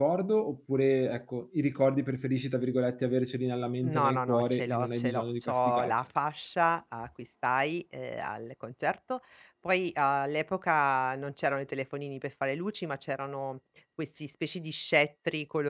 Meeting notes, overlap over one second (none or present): present